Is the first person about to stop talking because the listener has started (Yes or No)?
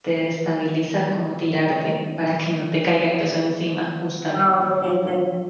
Yes